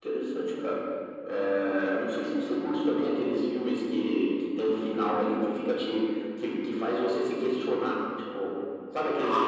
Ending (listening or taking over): listening